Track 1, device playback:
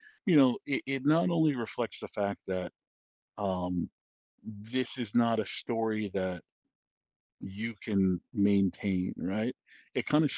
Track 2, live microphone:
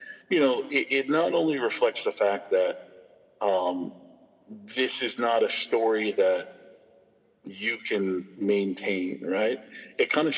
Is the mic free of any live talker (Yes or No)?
Yes